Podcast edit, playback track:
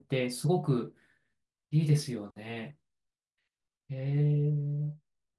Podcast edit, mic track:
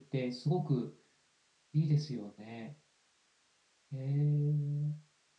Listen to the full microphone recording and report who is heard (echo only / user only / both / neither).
echo only